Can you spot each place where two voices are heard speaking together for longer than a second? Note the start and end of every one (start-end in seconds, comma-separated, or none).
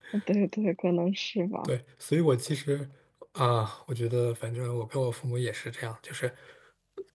none